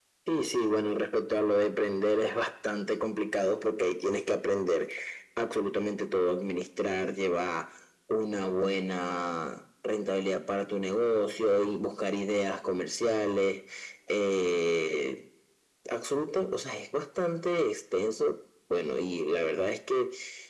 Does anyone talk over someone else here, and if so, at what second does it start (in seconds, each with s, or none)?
none